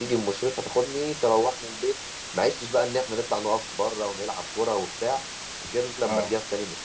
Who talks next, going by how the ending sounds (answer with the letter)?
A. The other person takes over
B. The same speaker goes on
B